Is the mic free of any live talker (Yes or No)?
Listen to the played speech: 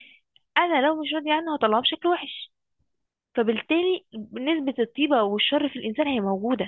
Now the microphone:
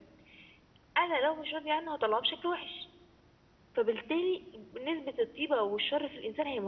Yes